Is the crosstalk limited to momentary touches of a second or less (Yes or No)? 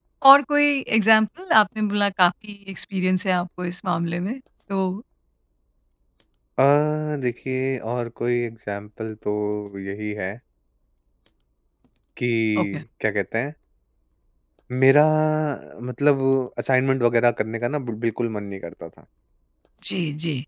Yes